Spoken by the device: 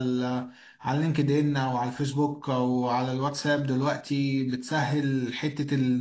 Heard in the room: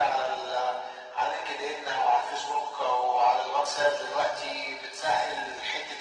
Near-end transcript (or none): none